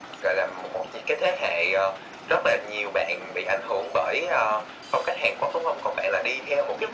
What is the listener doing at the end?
listening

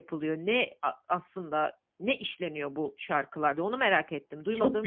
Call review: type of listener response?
taking over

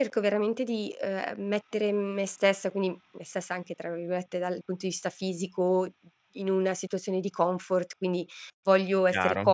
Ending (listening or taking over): listening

